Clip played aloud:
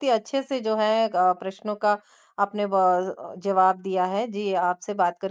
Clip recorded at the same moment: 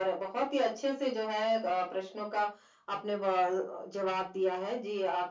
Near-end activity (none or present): none